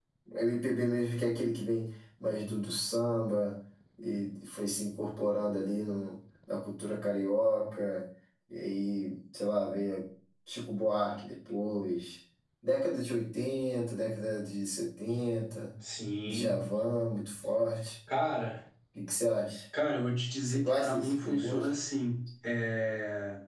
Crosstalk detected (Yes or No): Yes